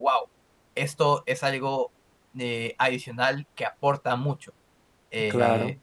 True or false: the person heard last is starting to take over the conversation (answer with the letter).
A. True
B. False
B